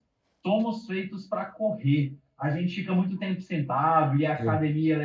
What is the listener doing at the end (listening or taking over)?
listening